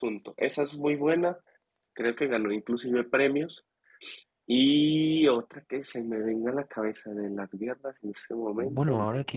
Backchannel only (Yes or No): No